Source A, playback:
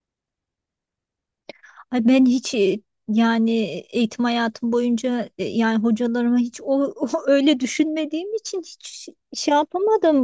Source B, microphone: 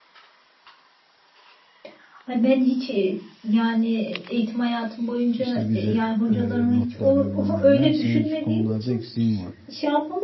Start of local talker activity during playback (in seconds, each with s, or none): 5.4 s